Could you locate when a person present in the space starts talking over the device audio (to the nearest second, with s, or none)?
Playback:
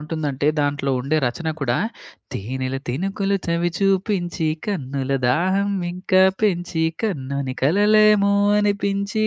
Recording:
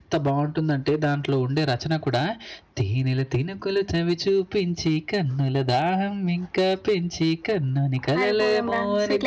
8 s